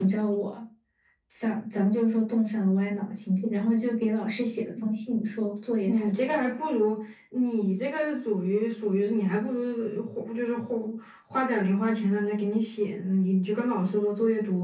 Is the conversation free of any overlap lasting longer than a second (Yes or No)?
Yes